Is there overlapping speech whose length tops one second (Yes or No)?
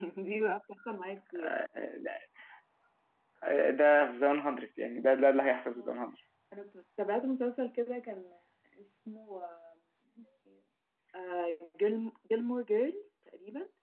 No